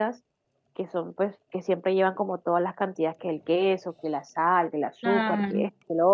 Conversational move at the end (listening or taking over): listening